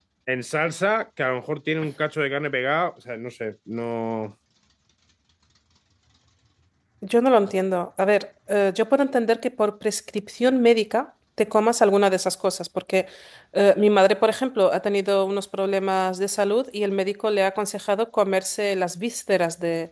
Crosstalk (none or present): none